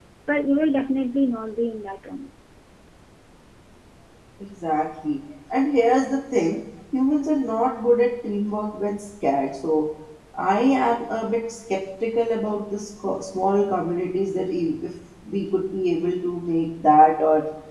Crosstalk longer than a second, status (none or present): none